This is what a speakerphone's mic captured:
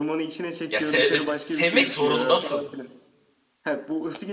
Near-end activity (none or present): present